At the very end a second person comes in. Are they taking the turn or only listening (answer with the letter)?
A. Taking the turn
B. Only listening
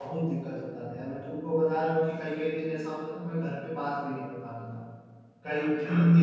B